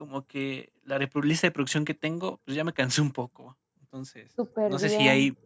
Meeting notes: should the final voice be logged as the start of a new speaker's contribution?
No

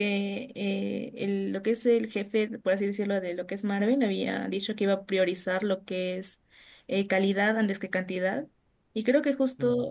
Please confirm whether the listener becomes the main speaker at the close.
No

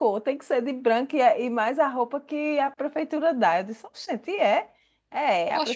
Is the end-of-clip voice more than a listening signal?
Yes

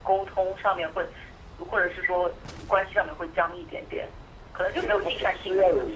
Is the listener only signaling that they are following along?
No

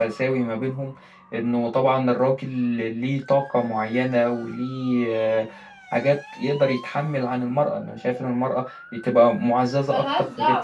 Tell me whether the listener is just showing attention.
No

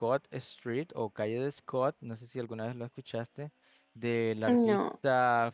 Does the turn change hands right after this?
No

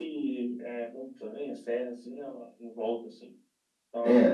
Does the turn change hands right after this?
Yes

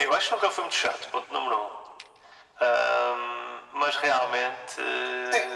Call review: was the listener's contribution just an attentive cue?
No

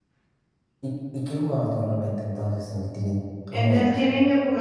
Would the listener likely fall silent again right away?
No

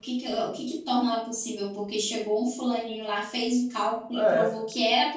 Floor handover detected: No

